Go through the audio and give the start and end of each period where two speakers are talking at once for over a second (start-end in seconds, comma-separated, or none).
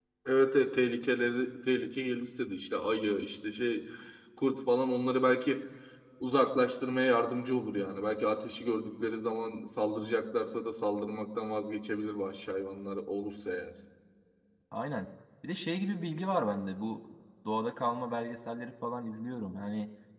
none